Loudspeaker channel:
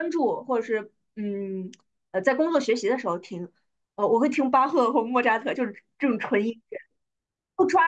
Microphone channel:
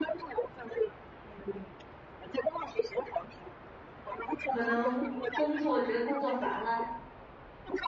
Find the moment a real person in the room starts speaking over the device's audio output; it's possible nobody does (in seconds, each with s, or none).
4.4 s